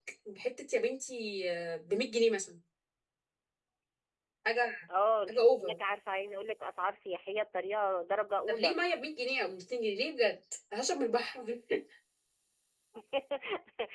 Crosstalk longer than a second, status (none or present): none